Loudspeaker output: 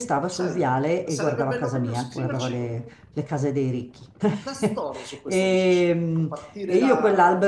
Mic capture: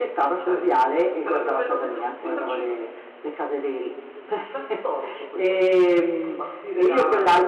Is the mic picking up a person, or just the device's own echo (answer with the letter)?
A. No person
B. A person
A